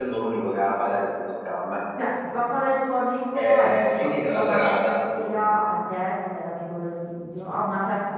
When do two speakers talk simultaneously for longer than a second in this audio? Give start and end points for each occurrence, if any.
3.3-5.6

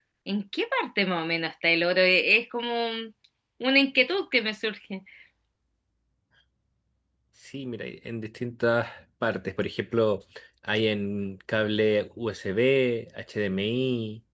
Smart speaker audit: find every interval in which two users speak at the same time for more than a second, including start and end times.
none

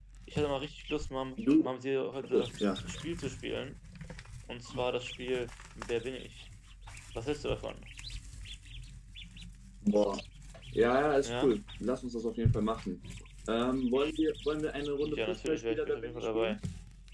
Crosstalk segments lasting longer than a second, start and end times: 15.0-16.6

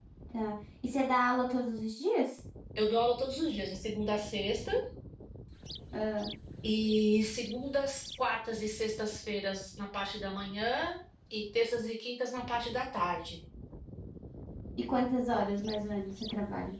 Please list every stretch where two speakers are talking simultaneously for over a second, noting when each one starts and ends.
none

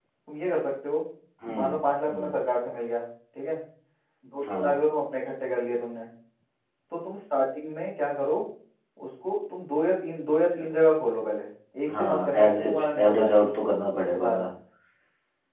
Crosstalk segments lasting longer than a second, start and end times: 12.0-13.4

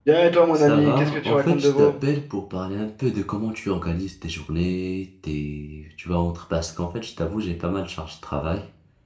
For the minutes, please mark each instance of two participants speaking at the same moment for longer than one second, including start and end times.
0.5-1.9

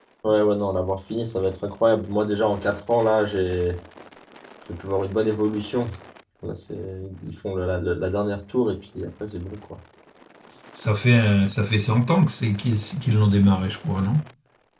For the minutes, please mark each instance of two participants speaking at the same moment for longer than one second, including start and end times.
none

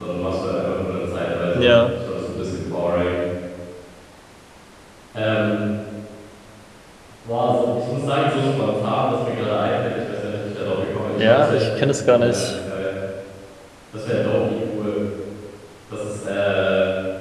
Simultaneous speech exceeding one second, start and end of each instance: 11.2-12.6

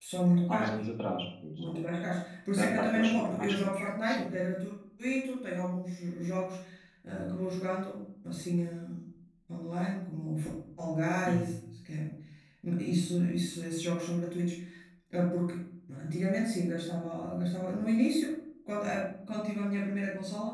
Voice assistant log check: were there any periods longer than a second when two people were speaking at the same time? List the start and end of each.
2.5-4.2

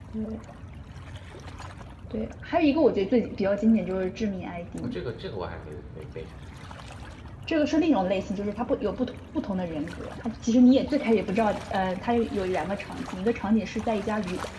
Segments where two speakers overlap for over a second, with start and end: none

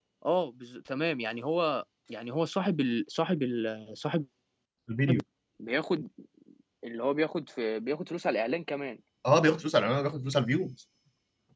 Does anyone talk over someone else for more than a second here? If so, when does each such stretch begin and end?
none

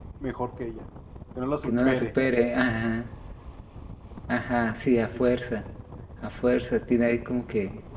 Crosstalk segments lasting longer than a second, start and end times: none

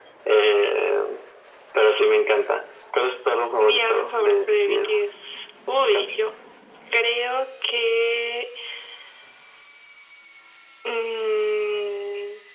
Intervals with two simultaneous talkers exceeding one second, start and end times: 3.6-4.9

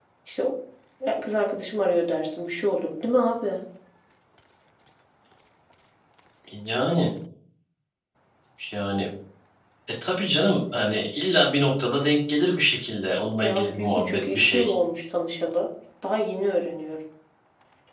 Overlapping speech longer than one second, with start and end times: 13.4-14.7

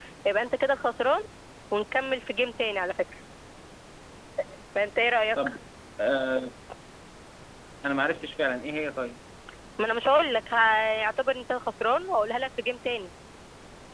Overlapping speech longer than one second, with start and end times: none

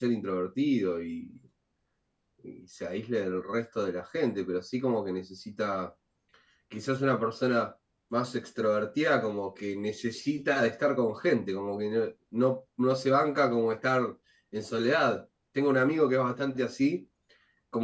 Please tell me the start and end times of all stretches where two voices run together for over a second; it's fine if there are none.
none

